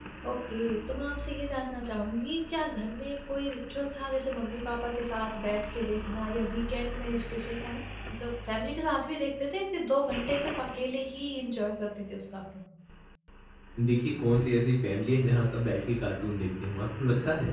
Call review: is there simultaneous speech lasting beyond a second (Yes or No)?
No